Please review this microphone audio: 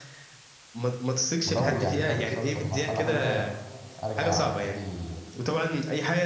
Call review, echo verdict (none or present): present